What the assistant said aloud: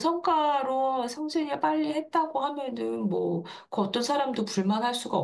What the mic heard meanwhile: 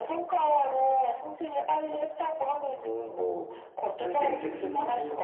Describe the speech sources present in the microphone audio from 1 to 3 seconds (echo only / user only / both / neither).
echo only